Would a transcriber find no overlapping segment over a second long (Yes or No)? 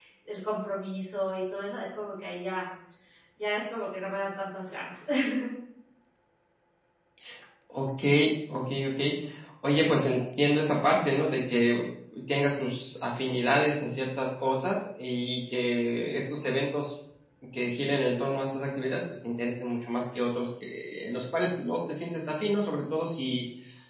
Yes